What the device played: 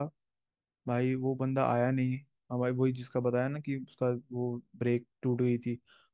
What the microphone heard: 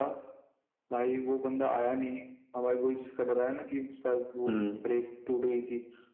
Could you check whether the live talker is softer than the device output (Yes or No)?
No